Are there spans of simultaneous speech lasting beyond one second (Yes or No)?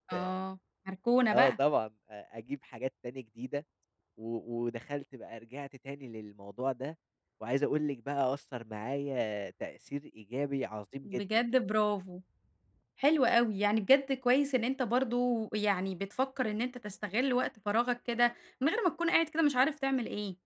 No